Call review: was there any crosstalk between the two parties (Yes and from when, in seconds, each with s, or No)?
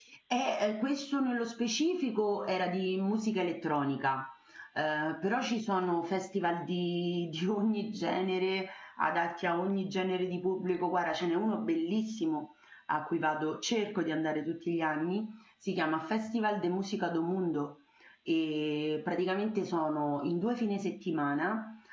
No